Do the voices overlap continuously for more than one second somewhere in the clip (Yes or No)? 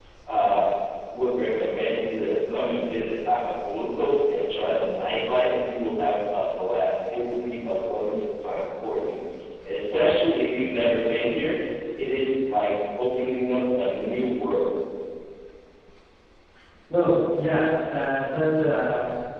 No